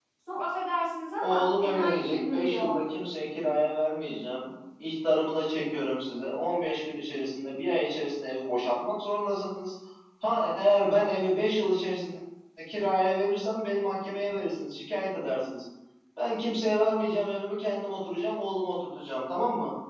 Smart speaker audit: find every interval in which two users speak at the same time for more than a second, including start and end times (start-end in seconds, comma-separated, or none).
1.2-2.7